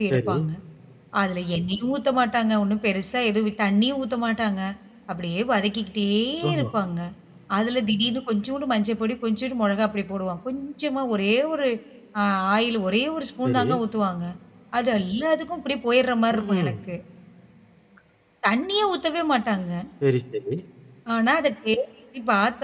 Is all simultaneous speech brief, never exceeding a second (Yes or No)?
Yes